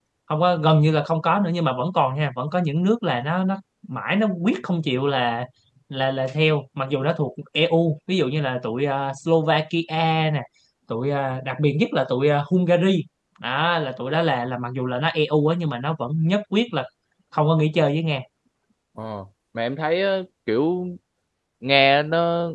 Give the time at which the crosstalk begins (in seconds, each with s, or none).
none